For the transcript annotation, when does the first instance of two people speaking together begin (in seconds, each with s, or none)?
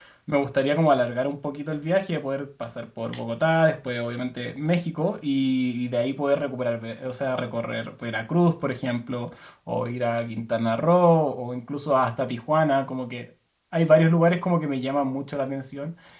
none